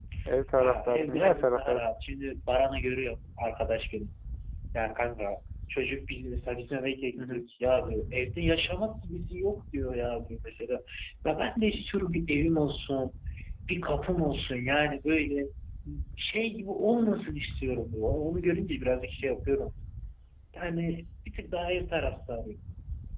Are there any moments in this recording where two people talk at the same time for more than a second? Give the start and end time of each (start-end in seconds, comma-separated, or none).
0.6-1.8